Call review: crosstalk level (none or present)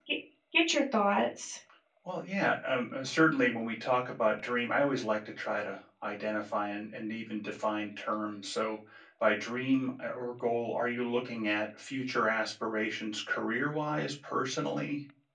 none